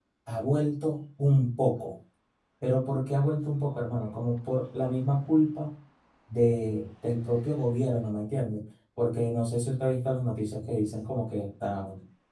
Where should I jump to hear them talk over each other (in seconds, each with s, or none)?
none